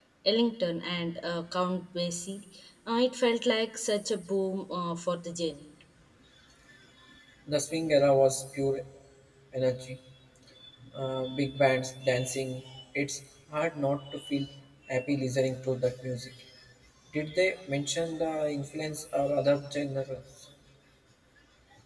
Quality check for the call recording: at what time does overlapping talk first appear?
none

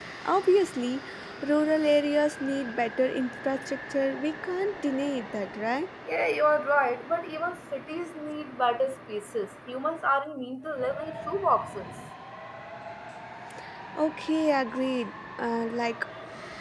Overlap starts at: none

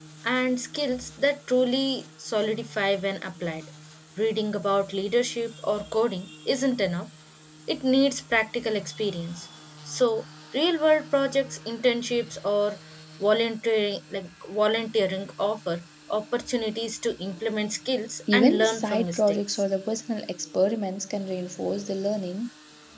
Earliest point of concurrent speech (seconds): 18.3 s

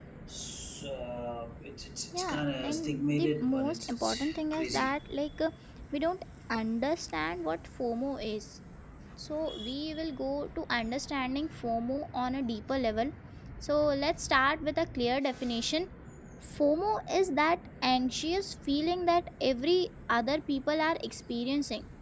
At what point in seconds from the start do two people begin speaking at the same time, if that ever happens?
2.1 s

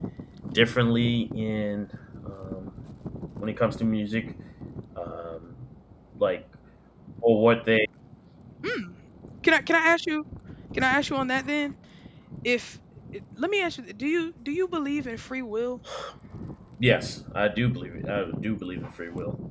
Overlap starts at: none

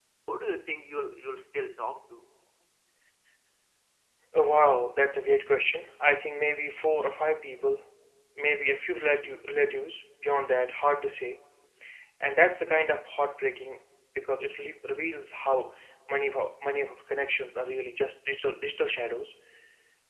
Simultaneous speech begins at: none

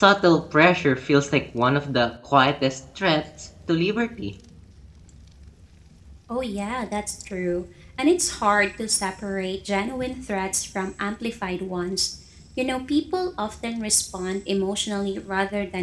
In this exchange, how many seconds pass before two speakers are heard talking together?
none

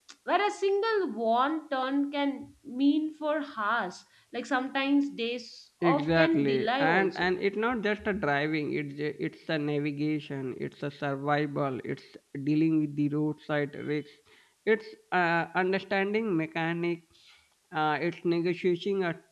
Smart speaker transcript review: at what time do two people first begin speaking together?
5.8 s

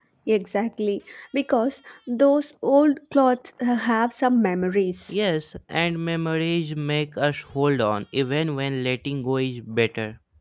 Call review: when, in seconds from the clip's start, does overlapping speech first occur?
none

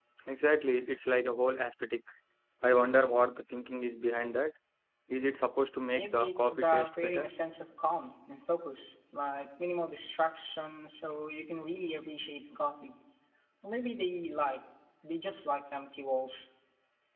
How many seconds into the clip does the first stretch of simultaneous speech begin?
5.9 s

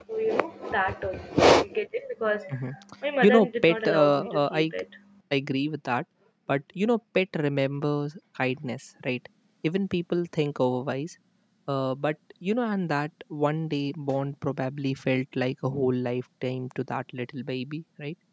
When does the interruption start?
3.2 s

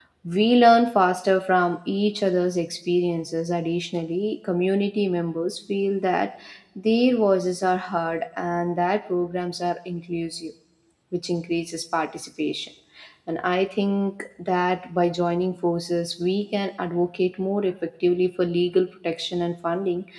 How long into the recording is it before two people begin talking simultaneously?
none

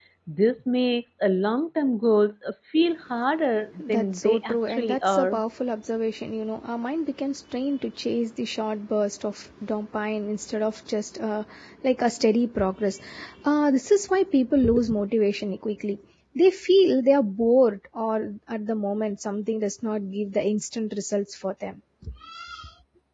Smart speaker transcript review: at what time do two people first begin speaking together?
3.8 s

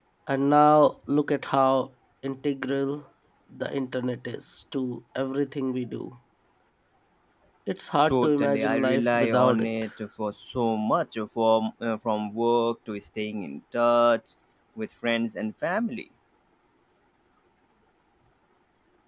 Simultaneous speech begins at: 8.1 s

